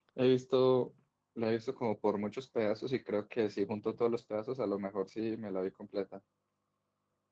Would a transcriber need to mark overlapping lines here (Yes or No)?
No